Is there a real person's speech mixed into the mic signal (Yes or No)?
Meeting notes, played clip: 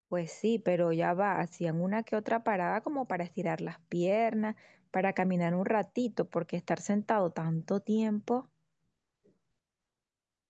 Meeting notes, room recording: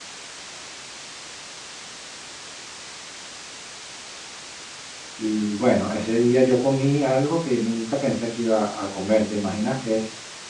Yes